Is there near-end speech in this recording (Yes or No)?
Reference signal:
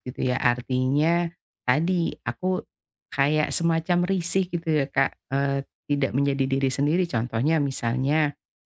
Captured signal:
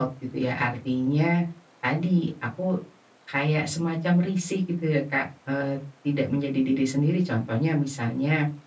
No